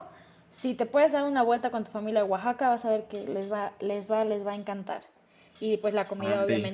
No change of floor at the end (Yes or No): Yes